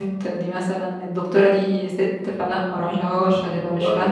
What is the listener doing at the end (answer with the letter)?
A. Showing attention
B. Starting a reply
B